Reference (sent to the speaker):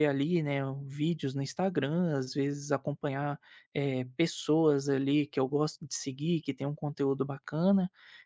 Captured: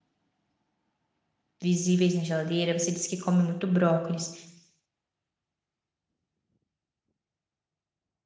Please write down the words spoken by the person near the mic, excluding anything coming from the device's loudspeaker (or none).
visíveis na geladeira. Você disse que come muito brócolis.